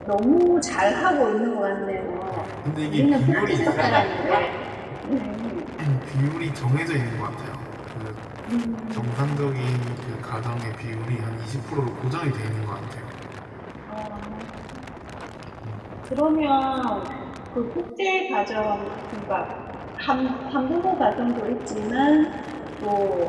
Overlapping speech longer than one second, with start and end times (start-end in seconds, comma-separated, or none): 2.9-4.2